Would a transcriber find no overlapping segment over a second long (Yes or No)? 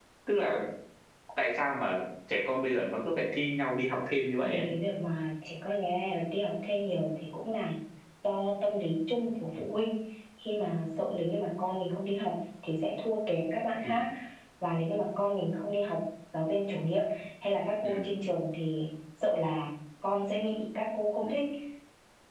Yes